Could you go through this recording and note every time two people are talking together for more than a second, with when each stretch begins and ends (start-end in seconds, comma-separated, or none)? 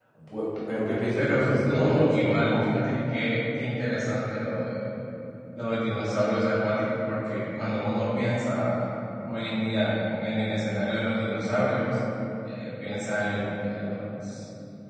1.2-2.8